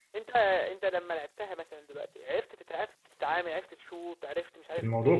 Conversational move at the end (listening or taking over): taking over